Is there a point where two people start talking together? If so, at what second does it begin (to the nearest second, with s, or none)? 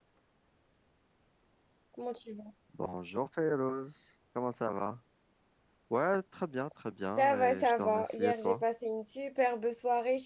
7 s